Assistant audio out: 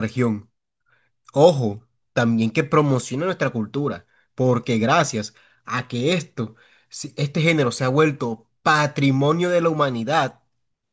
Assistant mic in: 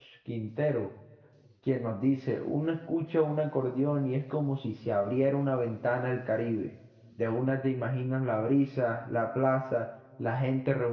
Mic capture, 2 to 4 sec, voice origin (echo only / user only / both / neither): user only